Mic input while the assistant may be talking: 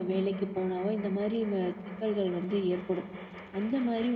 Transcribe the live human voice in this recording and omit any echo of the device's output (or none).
none